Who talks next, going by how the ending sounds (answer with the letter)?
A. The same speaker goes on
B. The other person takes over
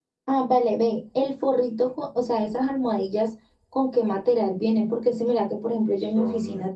A